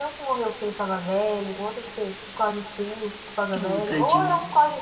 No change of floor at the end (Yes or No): Yes